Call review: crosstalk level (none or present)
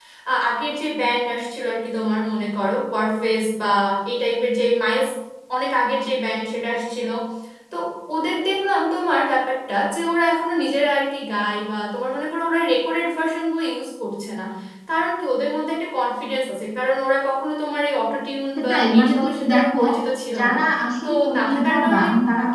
present